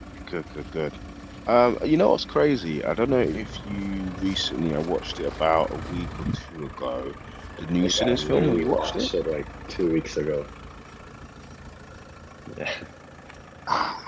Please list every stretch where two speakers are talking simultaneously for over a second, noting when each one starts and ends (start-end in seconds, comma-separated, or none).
7.8-9.1